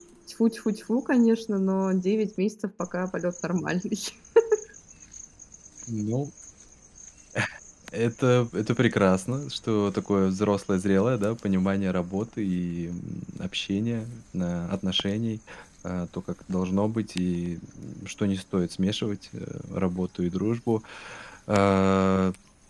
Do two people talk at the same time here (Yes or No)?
No